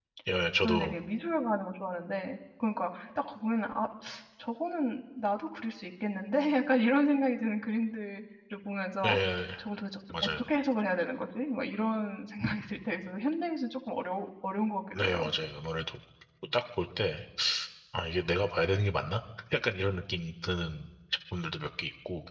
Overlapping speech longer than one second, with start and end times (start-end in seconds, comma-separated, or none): none